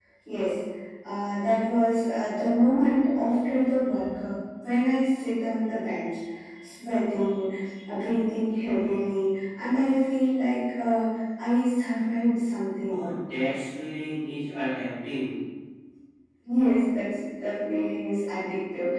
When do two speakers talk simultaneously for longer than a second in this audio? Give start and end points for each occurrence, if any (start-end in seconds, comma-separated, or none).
none